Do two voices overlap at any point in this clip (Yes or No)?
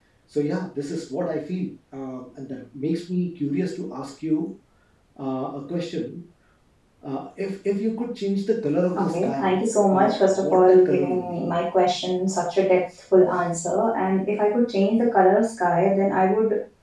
Yes